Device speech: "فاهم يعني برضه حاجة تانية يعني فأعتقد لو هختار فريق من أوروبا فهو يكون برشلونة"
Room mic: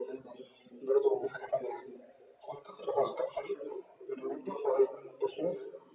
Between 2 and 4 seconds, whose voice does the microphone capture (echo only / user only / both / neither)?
echo only